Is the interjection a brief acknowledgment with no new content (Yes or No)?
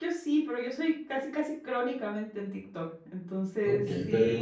No